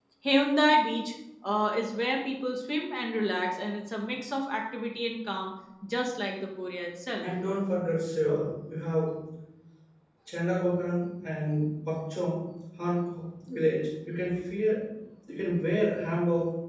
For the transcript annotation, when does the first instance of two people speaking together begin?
none

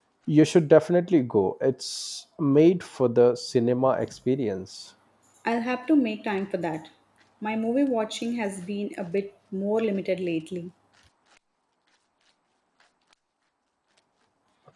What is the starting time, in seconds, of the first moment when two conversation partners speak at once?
none

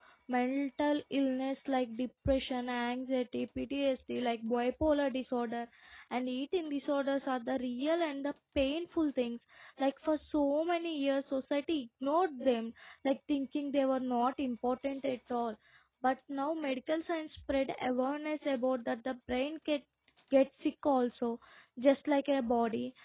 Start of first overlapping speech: none

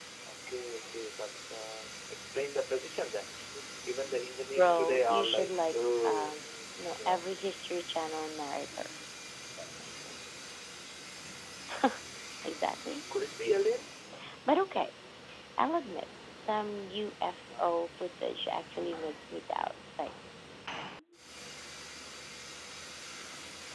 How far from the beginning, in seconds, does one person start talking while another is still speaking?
4.6 s

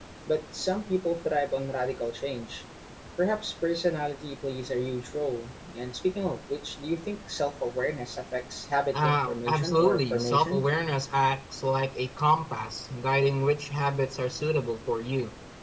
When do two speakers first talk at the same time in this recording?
8.9 s

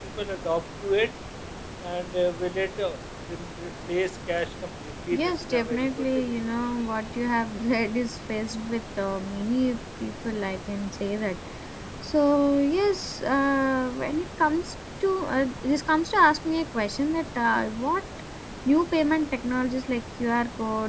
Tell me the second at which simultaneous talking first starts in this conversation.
5.1 s

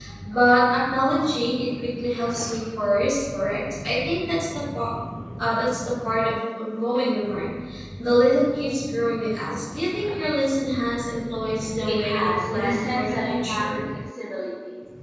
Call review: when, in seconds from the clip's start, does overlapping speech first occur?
11.9 s

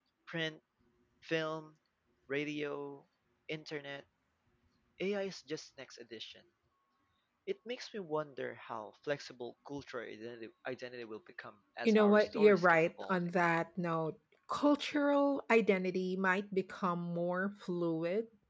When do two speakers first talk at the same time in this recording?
11.8 s

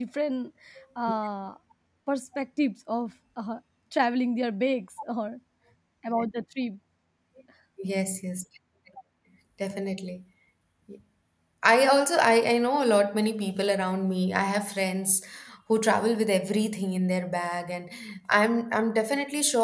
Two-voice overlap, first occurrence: none

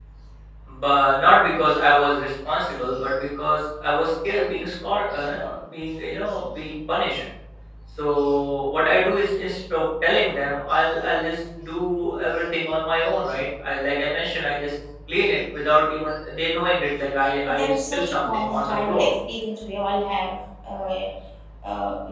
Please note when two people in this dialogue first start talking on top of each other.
17.5 s

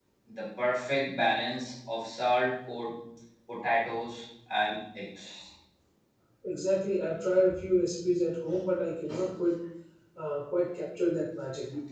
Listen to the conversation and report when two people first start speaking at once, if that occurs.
none

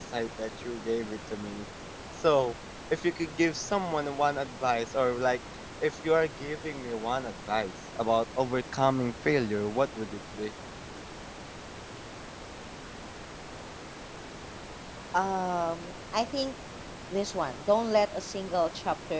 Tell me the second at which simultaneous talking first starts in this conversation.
none

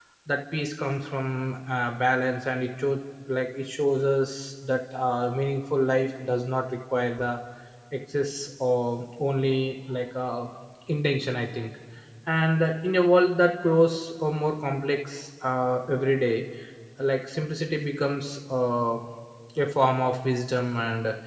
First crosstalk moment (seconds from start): none

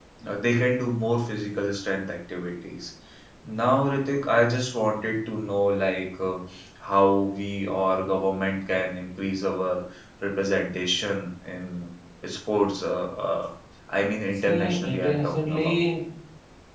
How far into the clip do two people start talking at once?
14.4 s

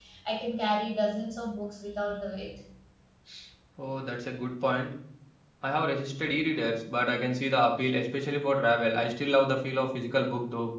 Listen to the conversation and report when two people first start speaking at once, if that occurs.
none

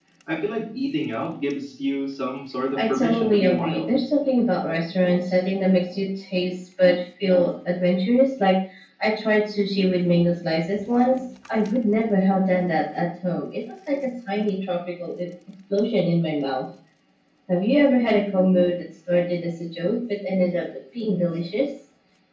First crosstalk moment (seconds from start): 2.8 s

